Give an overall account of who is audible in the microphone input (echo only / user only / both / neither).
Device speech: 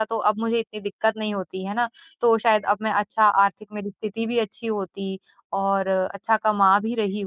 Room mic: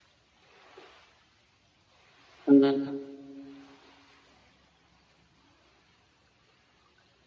user only